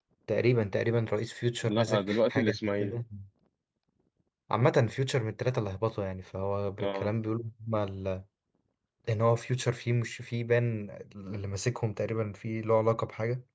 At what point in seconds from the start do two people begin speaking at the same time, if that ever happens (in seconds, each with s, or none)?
1.6 s